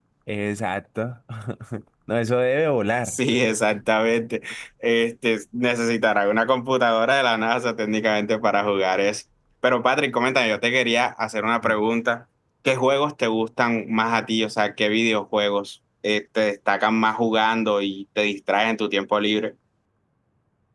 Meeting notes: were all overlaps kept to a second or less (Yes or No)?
Yes